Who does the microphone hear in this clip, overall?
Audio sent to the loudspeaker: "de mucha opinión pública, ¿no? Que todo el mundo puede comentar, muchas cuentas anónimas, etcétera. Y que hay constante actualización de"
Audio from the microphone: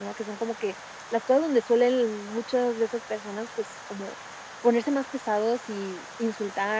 user only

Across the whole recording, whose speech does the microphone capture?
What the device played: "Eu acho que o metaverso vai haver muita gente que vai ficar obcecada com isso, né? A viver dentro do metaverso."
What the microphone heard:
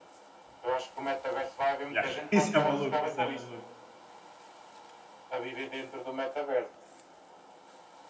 both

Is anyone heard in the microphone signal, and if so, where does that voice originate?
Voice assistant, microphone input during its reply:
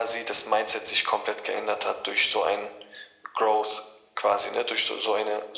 echo only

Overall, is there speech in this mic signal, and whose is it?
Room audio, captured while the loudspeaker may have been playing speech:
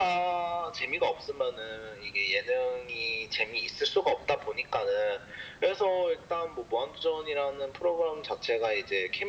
echo only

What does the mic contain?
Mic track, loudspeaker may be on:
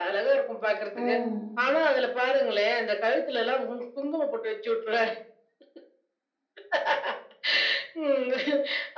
both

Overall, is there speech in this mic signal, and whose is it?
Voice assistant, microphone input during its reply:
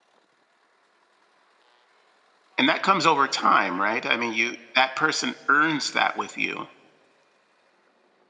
user only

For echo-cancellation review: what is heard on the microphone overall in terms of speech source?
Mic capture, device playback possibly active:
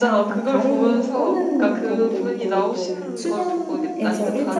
both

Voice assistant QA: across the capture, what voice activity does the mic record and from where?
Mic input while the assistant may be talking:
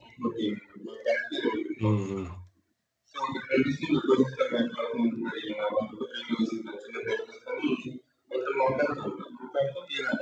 both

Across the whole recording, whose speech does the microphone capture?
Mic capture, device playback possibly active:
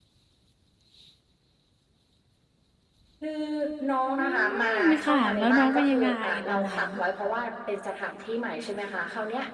both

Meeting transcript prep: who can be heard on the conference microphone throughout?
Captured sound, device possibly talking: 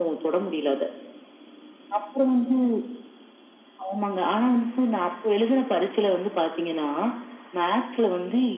echo only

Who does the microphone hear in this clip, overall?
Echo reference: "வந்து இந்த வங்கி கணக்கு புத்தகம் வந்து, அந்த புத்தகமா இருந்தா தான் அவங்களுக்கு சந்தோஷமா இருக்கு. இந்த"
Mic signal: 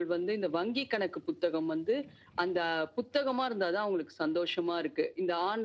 echo only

